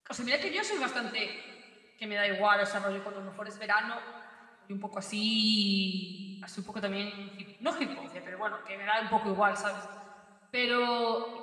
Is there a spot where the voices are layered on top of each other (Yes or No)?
No